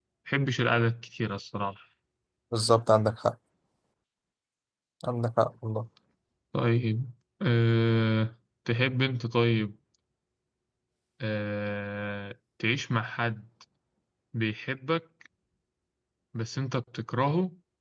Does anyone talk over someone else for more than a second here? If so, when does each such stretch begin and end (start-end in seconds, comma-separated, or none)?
none